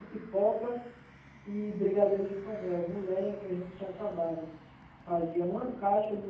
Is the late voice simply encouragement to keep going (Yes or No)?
Yes